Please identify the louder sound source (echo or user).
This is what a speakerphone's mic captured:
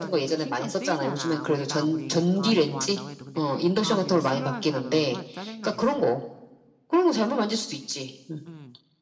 echo